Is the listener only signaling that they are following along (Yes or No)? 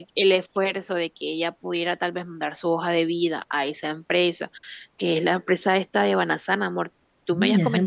No